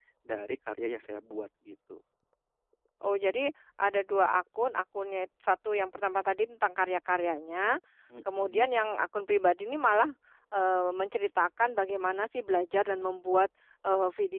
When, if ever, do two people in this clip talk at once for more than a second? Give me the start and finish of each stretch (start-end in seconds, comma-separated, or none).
none